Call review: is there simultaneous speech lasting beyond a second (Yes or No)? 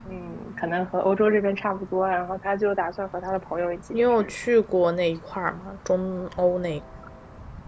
No